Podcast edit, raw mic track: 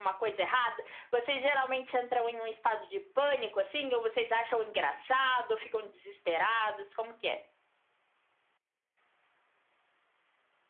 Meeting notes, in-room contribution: none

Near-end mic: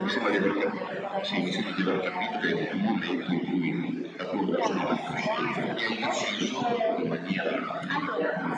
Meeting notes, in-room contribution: none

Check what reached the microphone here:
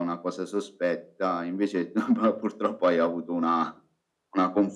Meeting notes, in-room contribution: none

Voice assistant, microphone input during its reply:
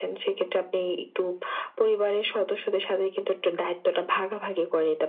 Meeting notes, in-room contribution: none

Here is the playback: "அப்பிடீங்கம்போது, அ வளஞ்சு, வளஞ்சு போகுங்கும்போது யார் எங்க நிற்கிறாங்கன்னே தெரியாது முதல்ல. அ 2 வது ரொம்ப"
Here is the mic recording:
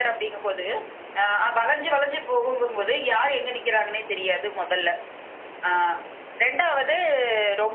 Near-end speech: none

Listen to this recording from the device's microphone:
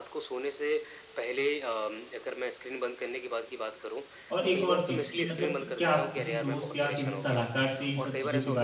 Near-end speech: present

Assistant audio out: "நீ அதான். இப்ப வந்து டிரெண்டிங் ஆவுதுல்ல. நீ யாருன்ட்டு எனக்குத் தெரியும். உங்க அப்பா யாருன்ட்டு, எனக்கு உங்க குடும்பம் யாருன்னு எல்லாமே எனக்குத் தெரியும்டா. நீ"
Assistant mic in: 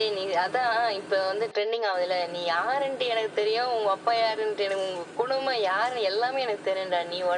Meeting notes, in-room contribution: none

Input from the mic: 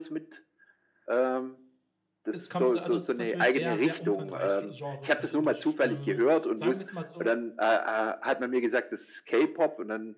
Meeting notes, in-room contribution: present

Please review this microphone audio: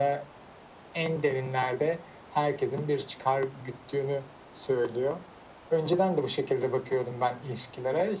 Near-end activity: none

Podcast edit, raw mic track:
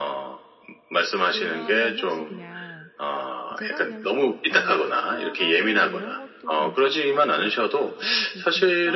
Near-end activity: present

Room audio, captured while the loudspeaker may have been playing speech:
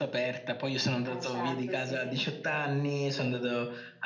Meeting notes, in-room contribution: present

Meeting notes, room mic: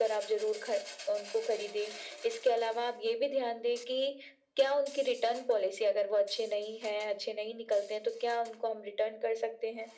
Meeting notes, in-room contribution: none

